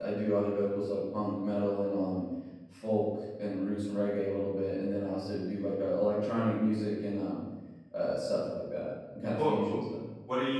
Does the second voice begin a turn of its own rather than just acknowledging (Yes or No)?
Yes